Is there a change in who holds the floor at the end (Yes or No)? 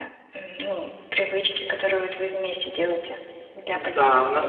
Yes